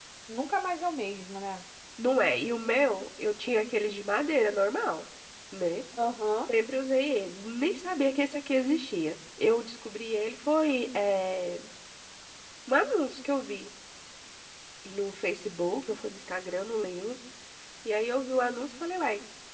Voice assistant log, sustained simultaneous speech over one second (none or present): none